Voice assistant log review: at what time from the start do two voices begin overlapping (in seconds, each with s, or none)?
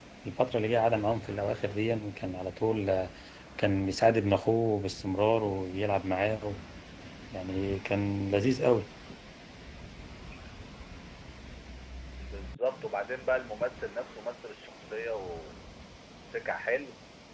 none